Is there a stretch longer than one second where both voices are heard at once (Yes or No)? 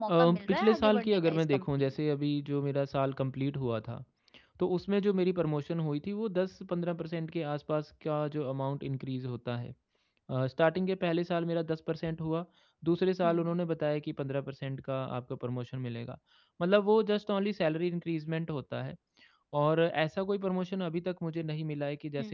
Yes